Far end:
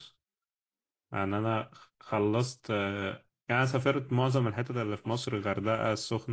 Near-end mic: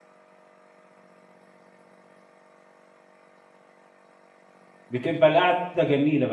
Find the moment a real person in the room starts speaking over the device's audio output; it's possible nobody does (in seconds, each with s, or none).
4.9 s